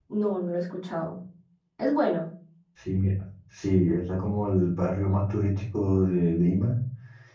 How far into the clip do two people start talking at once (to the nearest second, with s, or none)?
none